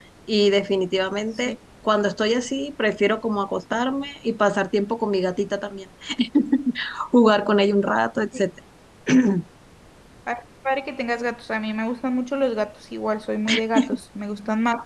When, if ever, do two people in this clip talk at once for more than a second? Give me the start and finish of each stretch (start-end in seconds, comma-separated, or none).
none